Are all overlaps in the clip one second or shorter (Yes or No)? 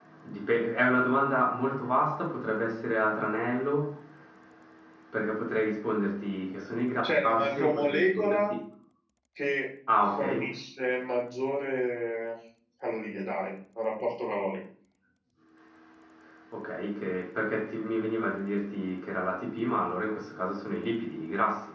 No